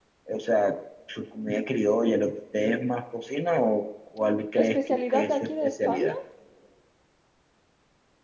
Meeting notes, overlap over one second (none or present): present